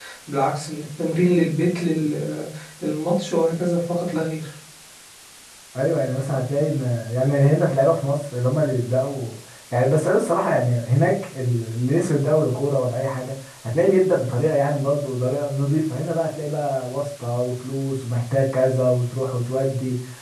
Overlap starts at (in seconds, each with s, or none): none